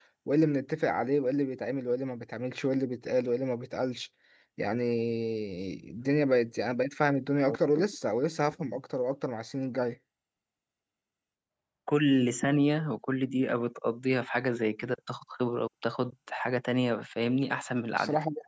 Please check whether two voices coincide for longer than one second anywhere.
No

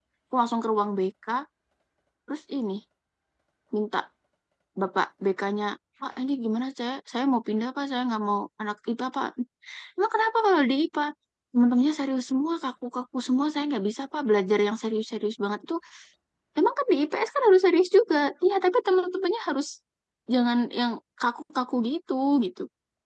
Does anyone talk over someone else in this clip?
No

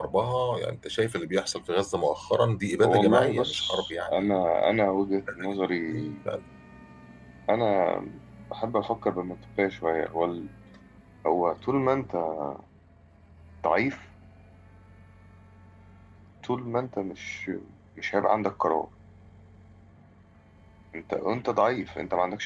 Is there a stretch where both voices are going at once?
Yes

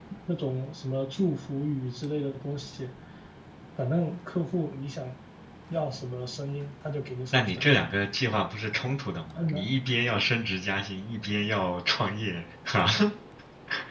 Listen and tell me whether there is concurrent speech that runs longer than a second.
No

